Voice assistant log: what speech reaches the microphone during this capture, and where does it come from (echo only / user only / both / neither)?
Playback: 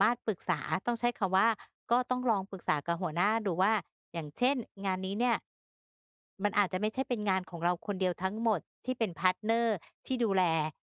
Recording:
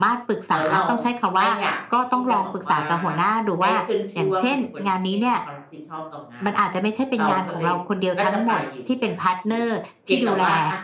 both